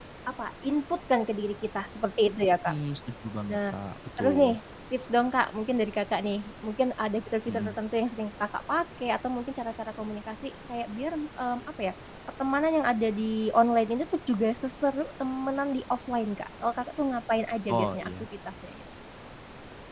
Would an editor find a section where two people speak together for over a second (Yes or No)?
No